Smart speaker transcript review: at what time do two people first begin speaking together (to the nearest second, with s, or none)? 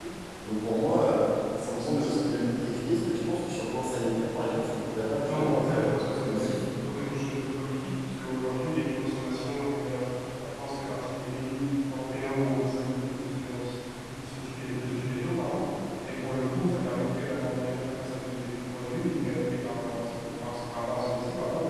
5 s